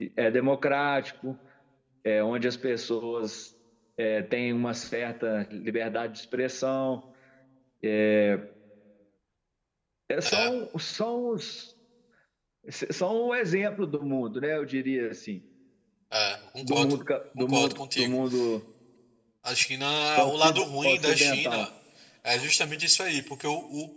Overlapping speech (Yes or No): Yes